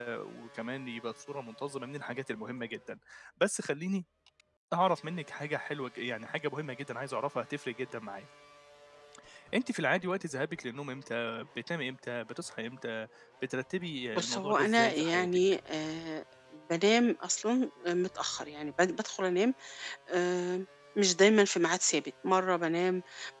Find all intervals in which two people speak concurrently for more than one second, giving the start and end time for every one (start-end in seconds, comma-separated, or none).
14.1-15.4